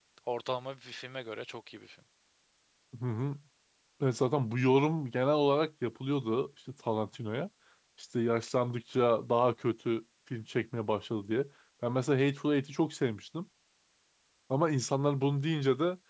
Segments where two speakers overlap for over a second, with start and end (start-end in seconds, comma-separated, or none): none